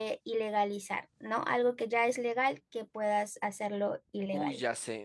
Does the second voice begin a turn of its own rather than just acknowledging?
Yes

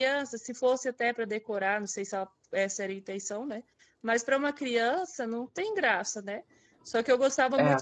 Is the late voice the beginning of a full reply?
No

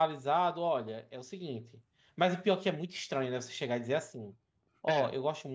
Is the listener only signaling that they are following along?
Yes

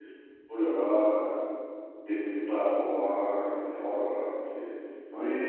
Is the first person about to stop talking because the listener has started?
Yes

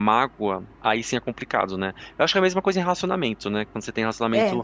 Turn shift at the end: No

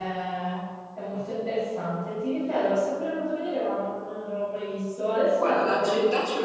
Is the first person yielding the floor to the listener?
Yes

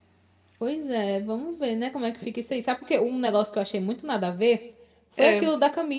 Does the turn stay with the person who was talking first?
Yes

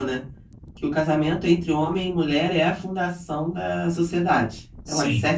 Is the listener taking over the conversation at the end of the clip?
No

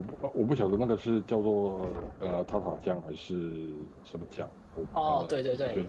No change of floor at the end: No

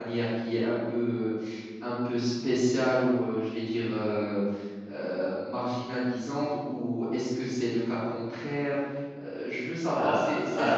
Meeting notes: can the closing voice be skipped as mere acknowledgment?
No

